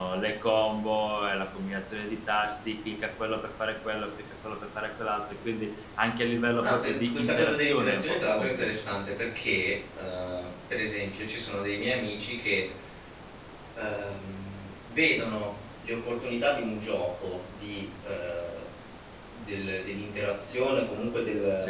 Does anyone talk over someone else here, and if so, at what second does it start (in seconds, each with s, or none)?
6.6 s